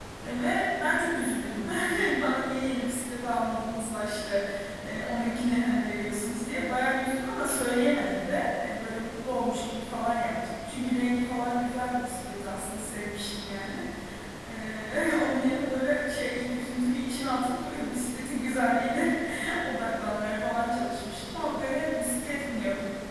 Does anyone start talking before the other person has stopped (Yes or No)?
No